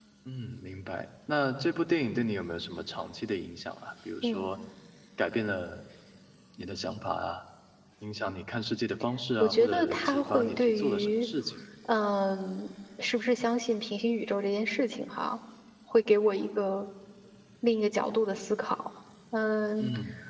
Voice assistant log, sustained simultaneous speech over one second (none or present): present